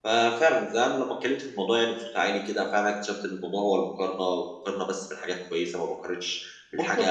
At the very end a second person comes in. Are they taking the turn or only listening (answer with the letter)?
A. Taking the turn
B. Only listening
A